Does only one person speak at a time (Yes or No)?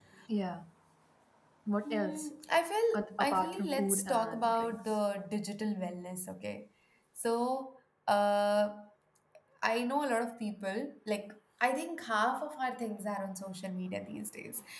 No